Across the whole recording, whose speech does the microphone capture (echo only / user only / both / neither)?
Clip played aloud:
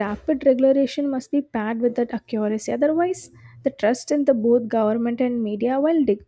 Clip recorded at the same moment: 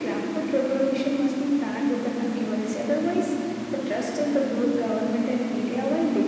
echo only